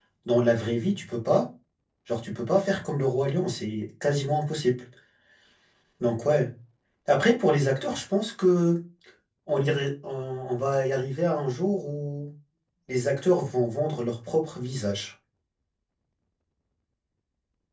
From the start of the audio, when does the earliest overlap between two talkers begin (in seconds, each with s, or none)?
none